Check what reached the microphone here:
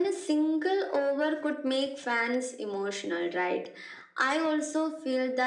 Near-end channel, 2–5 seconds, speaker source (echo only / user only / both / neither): echo only